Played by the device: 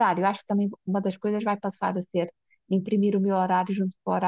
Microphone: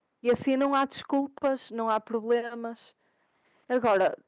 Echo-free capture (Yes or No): Yes